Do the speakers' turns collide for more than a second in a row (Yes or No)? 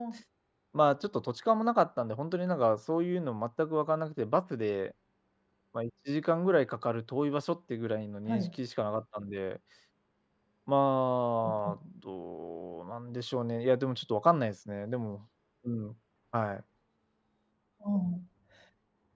No